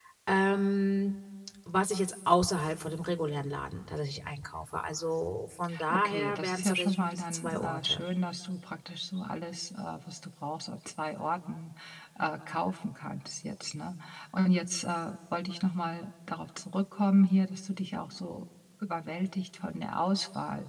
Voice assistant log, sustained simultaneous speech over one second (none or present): present